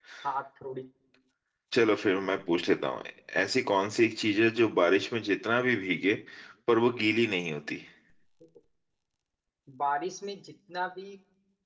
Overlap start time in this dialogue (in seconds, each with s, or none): none